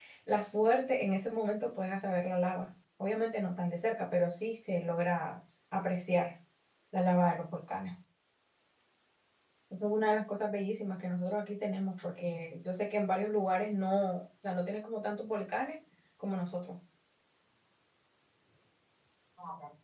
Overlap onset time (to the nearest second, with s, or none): none